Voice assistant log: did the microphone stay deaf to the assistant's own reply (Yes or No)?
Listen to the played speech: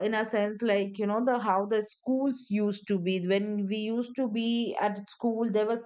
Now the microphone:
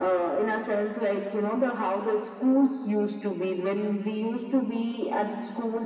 No